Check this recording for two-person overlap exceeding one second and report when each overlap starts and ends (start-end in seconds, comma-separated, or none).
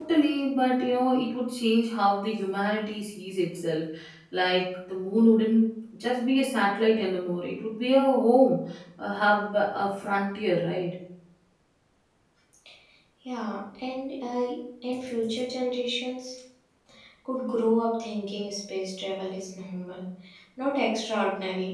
none